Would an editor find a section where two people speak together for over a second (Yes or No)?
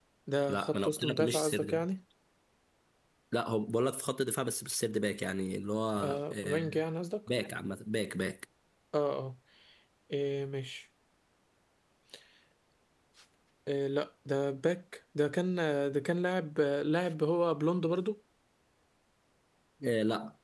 Yes